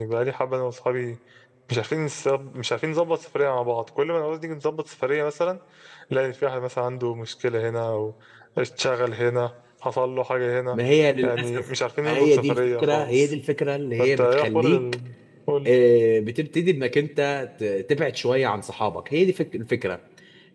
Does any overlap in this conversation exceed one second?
Yes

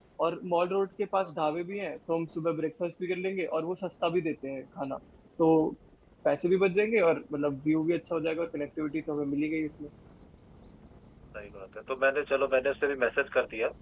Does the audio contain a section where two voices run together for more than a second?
No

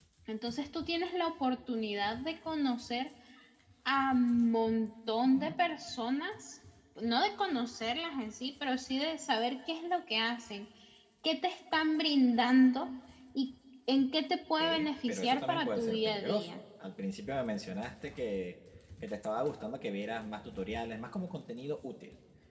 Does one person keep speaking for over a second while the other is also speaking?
Yes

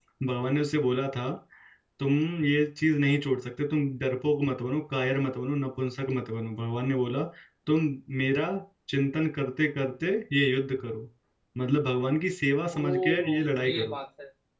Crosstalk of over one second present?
Yes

